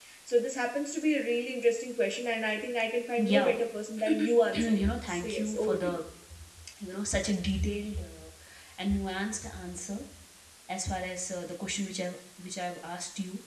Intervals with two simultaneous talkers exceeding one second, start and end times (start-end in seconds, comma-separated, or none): 4.5-6.0